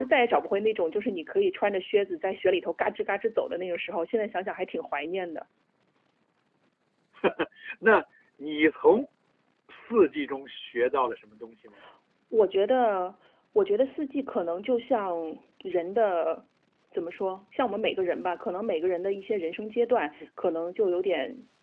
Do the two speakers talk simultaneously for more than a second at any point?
No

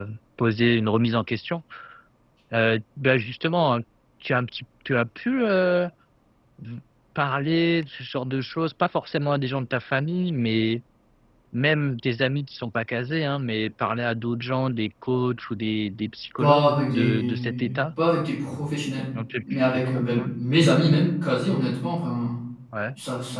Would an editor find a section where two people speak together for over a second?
Yes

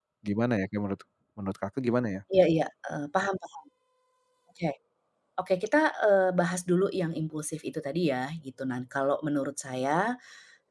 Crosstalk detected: No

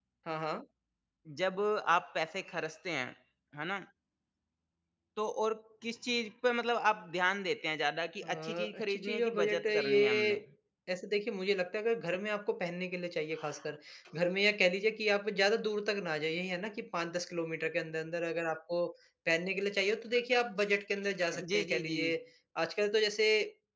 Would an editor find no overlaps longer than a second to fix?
No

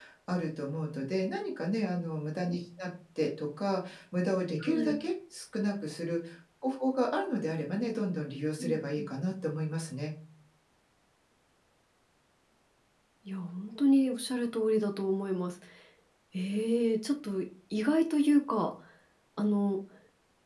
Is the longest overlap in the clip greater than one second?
No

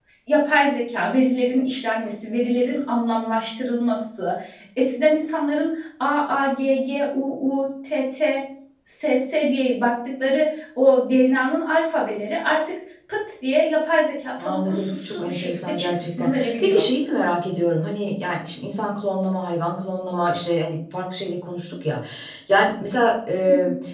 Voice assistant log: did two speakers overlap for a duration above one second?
Yes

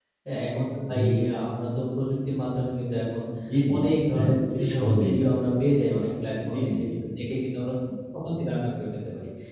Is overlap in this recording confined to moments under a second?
No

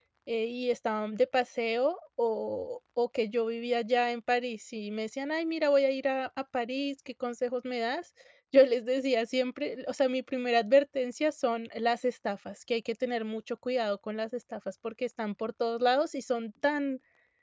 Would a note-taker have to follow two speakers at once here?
No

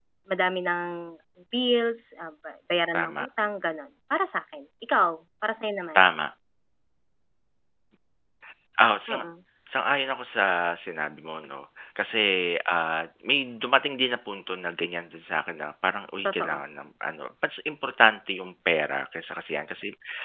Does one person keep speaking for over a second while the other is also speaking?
No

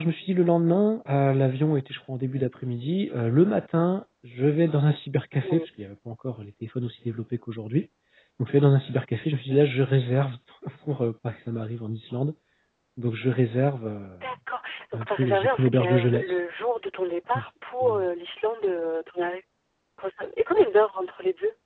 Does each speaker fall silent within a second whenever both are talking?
No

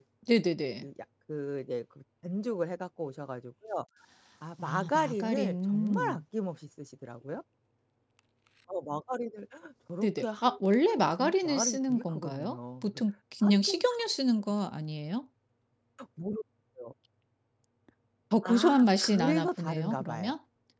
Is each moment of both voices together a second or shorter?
No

